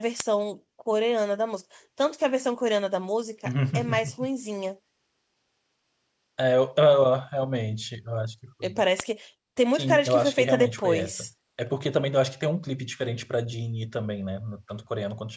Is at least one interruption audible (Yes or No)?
Yes